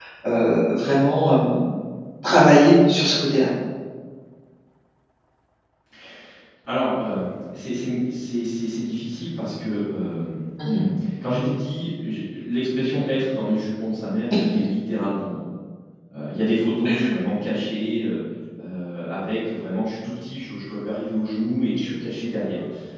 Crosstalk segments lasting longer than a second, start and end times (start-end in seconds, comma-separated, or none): none